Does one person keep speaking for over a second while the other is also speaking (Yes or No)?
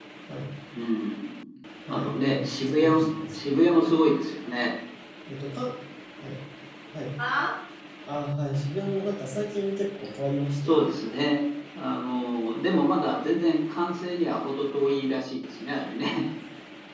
Yes